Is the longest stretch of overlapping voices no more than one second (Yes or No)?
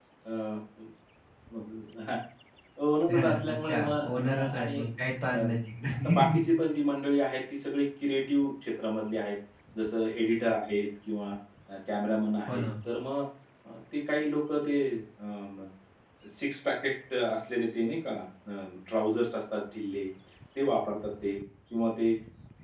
No